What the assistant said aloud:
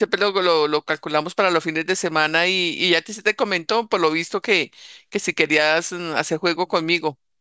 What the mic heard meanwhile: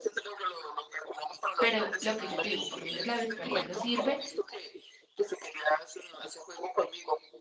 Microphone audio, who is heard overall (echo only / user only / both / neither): both